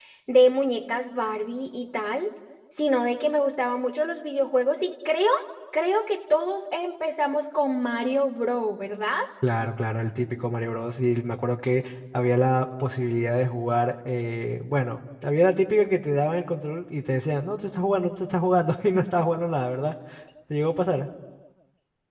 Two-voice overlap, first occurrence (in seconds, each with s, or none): none